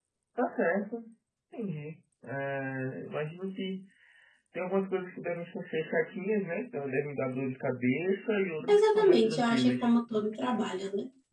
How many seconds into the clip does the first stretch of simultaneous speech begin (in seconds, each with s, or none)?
8.7 s